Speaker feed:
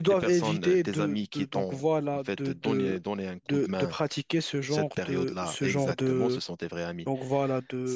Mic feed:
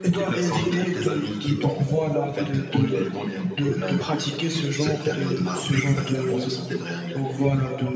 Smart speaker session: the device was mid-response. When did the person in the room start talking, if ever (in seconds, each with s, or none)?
none